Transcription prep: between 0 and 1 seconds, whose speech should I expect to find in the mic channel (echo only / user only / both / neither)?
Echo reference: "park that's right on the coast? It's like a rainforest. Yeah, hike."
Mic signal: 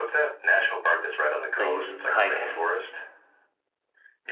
echo only